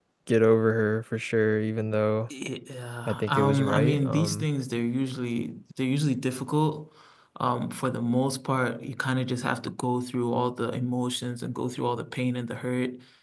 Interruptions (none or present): present